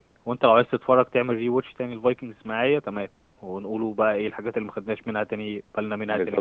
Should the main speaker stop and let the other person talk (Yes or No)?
Yes